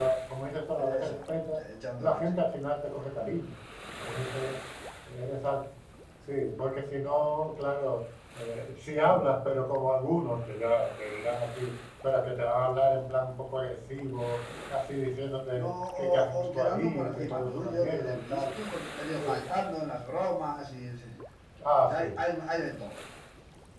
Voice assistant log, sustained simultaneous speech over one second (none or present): present